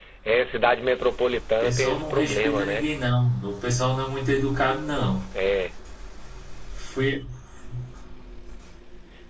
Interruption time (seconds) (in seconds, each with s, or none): 1.6 s